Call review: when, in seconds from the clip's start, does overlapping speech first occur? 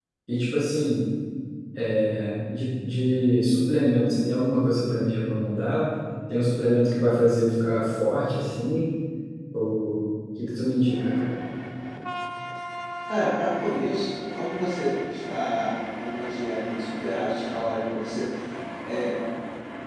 none

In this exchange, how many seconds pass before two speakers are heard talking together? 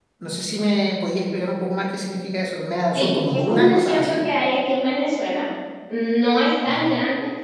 2.9 s

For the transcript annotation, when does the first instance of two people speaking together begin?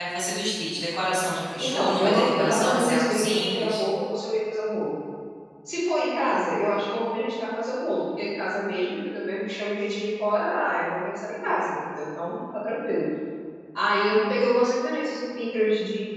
1.6 s

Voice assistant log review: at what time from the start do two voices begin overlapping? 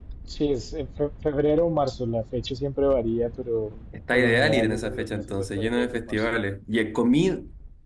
3.9 s

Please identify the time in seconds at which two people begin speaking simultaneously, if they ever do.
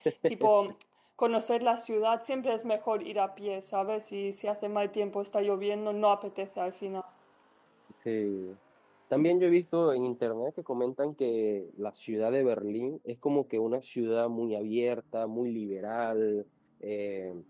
none

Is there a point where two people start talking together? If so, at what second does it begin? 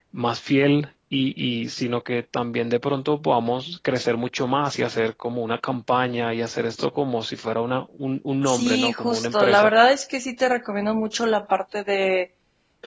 8.4 s

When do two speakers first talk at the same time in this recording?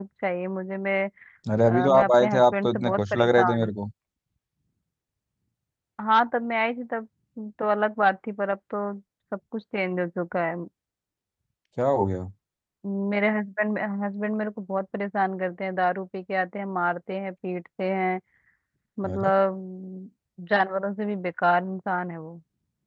1.6 s

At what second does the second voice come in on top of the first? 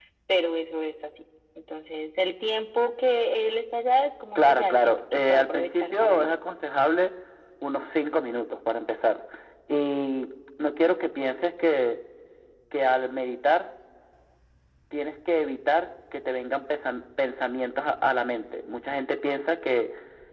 4.3 s

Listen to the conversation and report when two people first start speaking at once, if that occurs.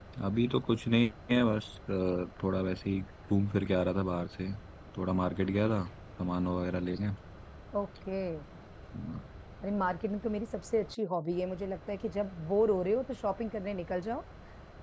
none

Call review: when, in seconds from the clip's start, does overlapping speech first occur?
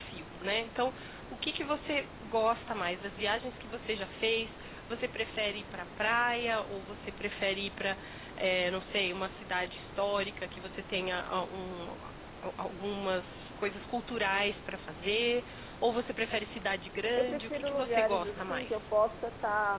17.2 s

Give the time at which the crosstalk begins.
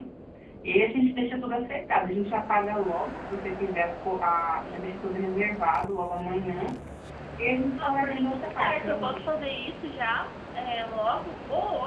7.8 s

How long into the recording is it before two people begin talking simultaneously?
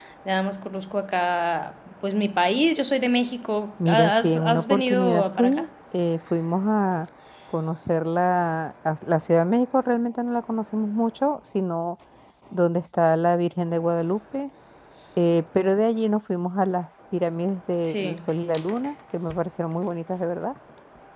3.9 s

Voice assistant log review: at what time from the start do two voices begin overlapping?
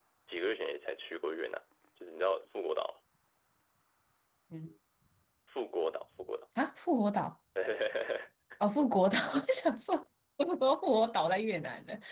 none

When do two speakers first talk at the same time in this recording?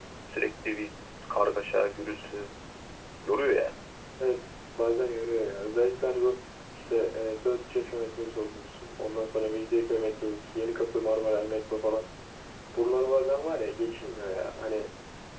none

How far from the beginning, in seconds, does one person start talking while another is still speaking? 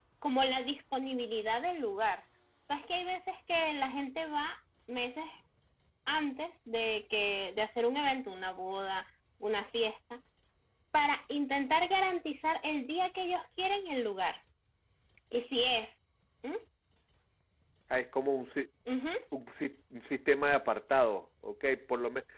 none

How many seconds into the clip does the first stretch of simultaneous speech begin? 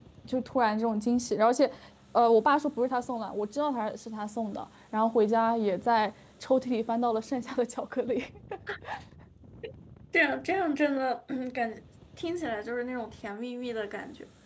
none

